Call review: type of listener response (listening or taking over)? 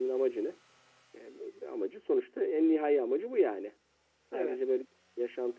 listening